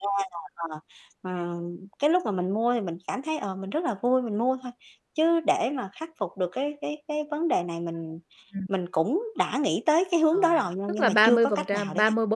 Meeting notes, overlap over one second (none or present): present